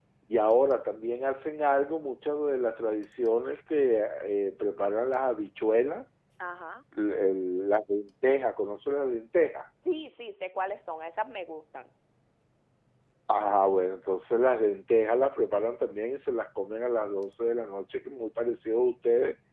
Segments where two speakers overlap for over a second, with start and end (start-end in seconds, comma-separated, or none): none